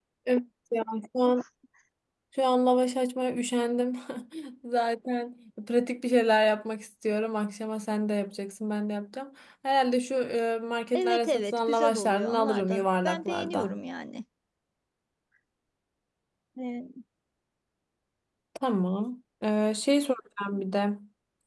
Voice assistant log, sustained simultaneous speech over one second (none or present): present